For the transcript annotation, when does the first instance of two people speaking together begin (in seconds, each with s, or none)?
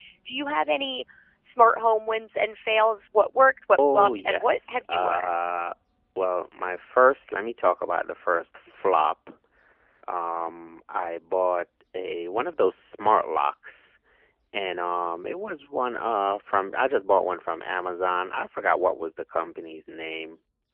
3.8 s